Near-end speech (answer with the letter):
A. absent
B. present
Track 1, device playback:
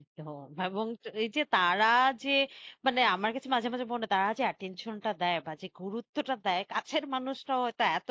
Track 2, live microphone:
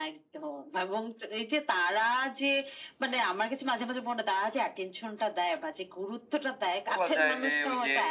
B